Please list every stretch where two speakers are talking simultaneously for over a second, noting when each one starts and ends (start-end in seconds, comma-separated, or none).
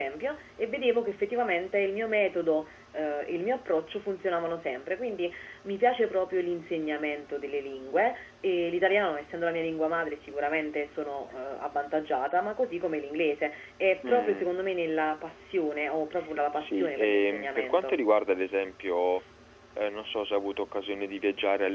16.6-18.0